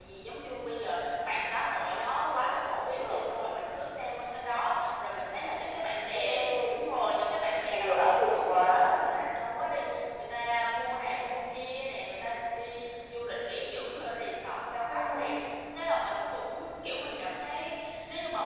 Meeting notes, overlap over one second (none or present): present